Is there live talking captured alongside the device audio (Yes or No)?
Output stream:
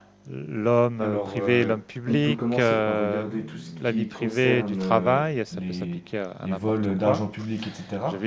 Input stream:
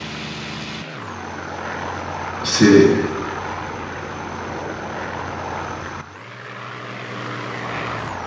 Yes